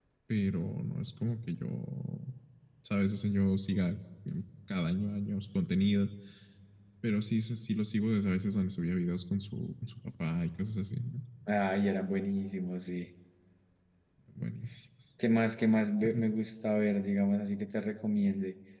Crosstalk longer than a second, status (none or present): none